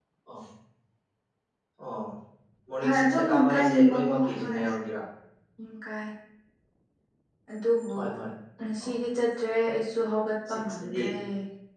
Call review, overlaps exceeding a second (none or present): present